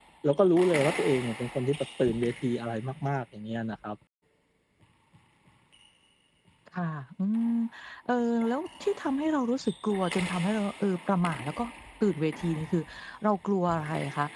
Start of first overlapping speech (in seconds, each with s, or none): none